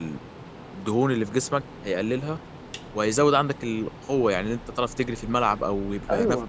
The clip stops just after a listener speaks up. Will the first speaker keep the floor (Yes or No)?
No